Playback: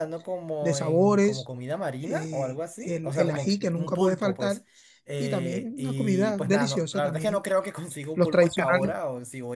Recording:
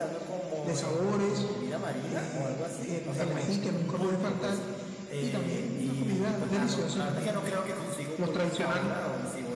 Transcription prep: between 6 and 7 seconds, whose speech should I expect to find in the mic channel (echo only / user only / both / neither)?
echo only